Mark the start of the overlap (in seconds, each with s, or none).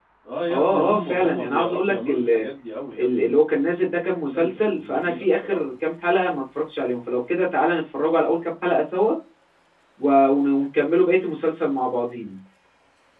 0.5 s